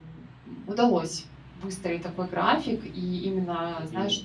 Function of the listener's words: listening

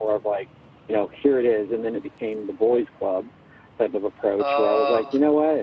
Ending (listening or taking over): listening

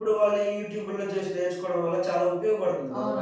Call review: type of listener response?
taking over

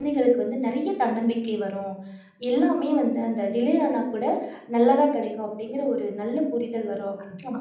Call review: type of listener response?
taking over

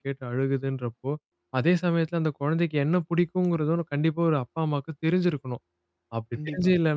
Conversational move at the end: listening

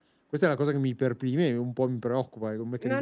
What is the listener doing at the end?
taking over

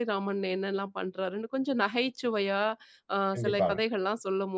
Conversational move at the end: listening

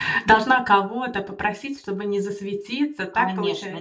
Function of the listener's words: taking over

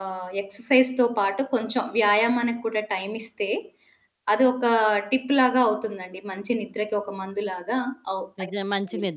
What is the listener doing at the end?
taking over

